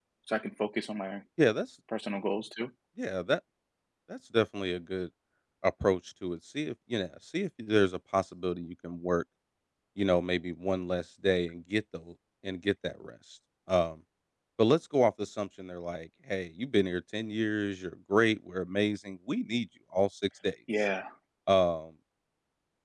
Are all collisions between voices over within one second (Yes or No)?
Yes